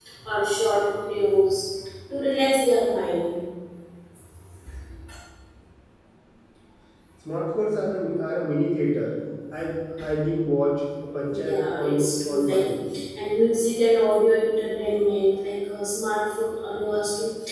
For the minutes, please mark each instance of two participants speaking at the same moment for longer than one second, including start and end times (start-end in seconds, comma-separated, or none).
11.3-12.7